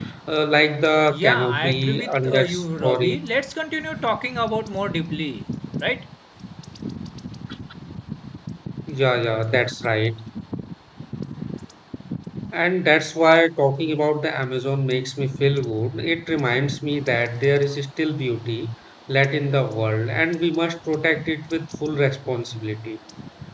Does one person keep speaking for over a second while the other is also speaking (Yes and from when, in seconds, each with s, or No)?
Yes, from 1.1 s